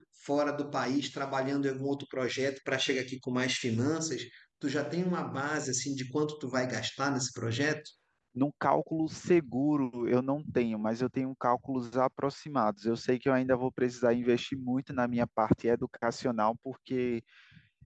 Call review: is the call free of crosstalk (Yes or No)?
Yes